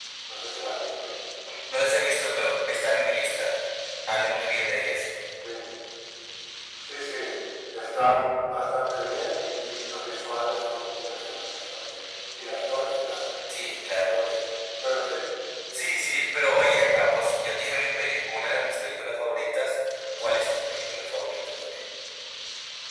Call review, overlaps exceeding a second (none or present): none